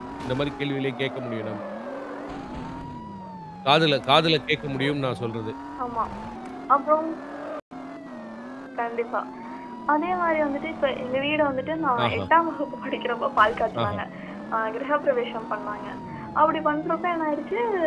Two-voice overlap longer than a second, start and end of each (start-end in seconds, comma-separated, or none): none